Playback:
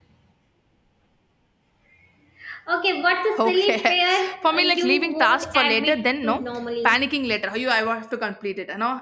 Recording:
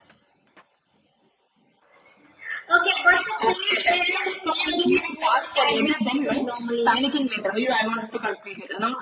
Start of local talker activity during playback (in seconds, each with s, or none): none